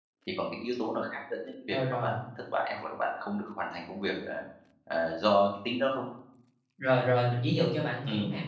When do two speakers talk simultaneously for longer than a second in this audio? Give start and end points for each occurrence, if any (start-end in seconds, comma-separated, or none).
none